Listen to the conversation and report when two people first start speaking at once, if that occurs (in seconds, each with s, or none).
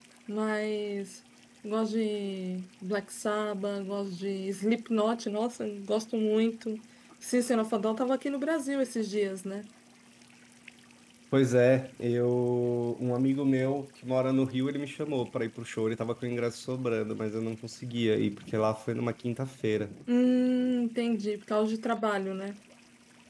none